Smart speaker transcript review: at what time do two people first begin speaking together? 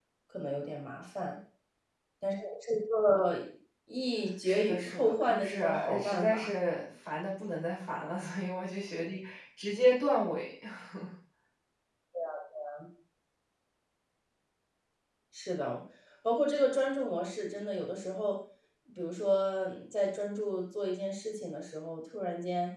4.4 s

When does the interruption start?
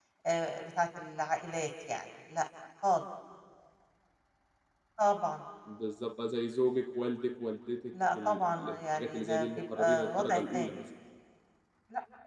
7.9 s

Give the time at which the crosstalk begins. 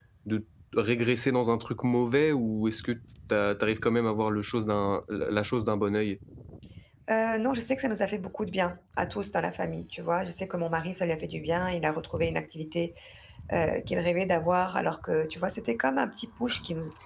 none

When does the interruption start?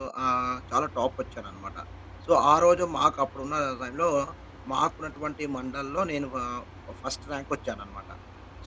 none

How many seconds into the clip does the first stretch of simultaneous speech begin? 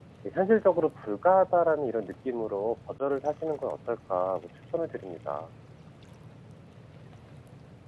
none

